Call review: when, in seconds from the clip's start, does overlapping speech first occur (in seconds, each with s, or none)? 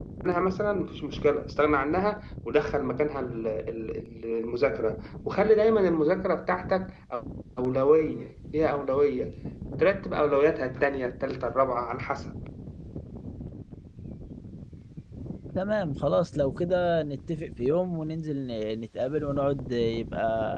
none